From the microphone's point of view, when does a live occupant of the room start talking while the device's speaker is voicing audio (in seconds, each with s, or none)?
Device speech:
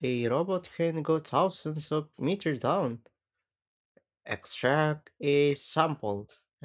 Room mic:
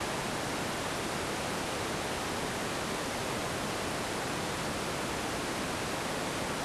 none